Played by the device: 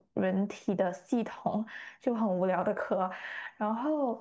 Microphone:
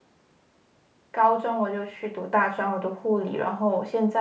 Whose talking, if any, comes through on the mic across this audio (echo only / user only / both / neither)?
user only